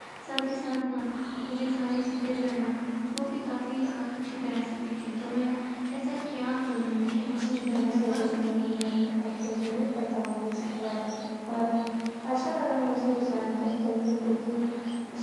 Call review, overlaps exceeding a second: present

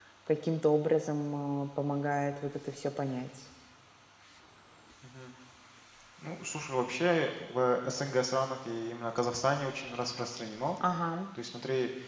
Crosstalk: none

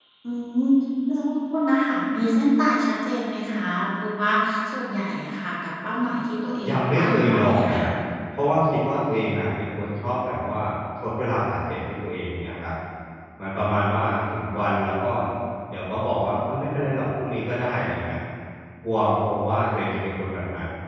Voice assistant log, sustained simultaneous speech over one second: present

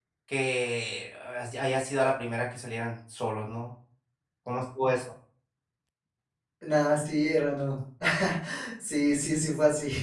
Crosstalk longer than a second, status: none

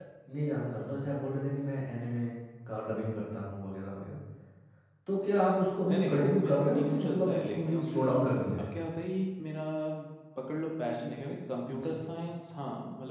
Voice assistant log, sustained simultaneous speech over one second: present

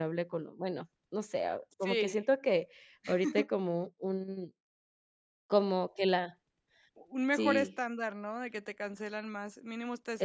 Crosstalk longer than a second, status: none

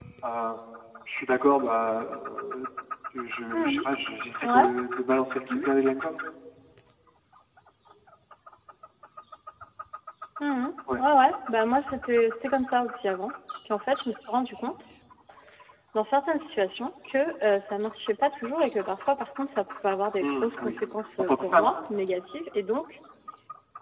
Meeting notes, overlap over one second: none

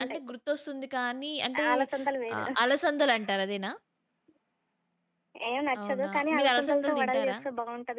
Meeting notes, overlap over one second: present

